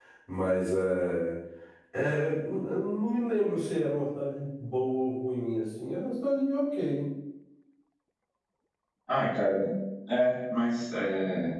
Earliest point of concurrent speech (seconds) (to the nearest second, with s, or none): none